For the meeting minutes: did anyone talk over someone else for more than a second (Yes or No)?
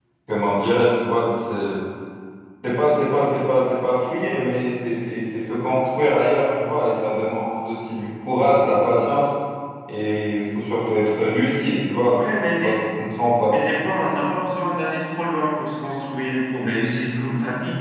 No